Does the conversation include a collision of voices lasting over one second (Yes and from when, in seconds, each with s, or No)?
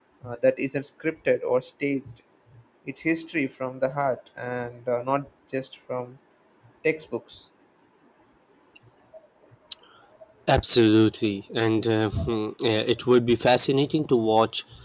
No